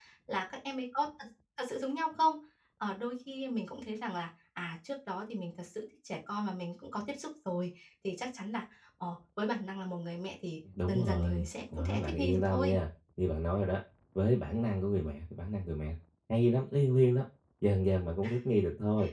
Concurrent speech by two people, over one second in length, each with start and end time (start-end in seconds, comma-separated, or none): 10.9-12.8